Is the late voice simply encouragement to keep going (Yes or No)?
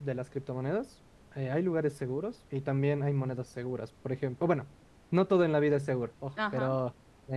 Yes